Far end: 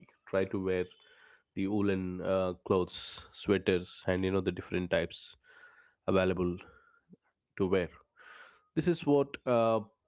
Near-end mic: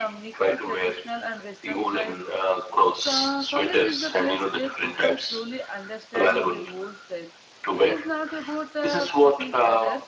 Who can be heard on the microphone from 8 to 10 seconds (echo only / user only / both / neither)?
both